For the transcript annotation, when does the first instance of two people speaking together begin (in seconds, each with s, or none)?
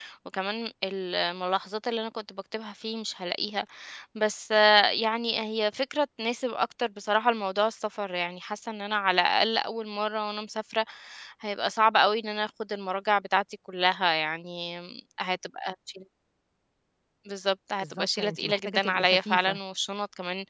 17.8 s